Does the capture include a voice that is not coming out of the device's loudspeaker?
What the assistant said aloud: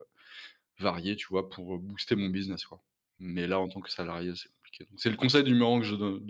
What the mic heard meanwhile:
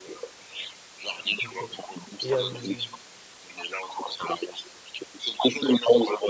Yes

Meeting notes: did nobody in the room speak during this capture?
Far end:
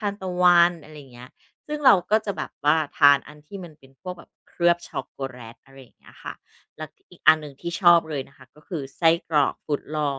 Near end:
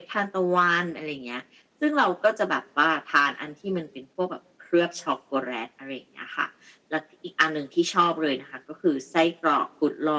Yes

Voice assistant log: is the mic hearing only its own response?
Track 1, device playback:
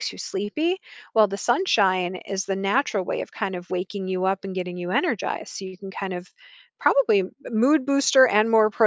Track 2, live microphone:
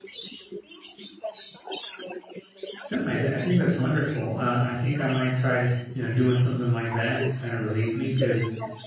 No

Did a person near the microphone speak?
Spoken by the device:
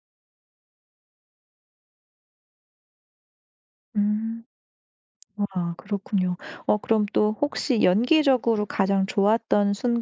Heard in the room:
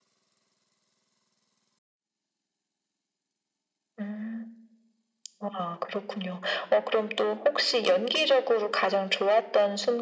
No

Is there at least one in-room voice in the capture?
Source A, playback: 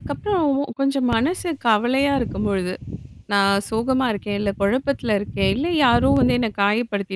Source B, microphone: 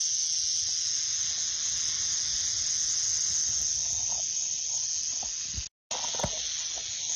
No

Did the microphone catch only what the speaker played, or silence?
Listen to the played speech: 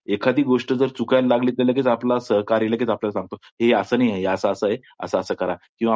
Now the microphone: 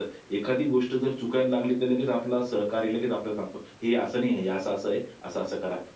Yes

